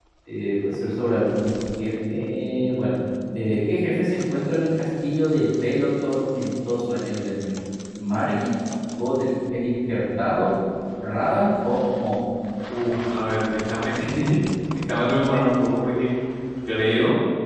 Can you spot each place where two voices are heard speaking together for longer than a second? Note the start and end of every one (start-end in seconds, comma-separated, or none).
none